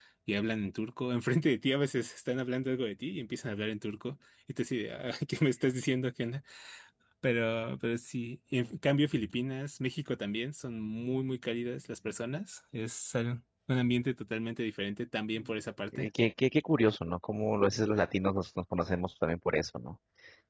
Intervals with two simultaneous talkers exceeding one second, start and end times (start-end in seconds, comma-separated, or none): none